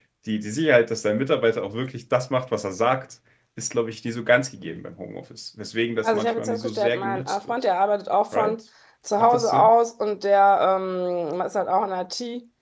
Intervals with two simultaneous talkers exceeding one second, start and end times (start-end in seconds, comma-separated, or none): 6.0-7.5